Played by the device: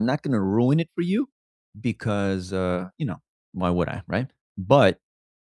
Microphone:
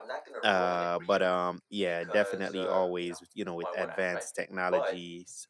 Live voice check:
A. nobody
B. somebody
B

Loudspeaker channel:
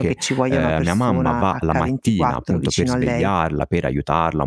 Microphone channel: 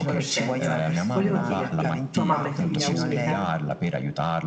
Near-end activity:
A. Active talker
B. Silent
A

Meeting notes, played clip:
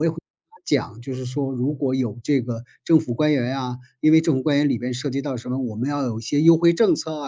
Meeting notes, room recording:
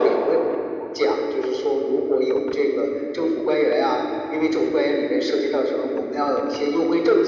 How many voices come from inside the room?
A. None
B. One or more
A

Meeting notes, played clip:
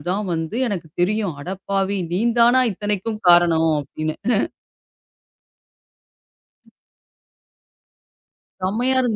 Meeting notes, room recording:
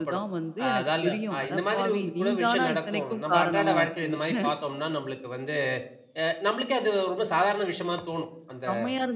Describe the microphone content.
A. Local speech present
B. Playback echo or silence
A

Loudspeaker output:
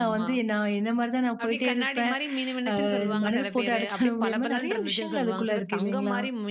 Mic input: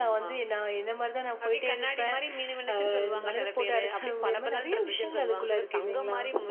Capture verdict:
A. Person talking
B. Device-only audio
B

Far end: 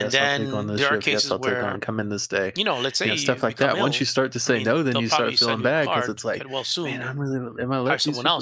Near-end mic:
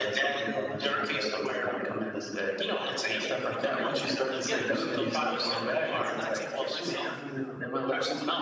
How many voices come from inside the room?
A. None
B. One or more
B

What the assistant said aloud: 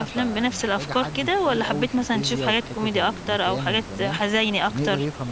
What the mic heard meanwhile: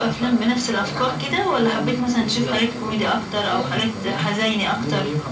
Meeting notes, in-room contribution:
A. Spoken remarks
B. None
B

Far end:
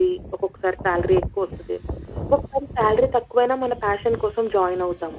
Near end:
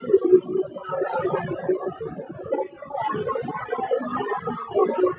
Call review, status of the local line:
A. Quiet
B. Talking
A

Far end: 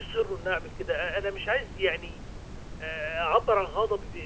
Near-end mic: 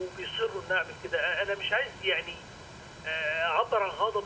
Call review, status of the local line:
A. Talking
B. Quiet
B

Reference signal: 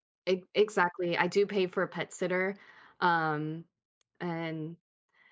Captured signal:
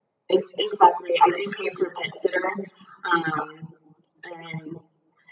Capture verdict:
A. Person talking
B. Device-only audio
B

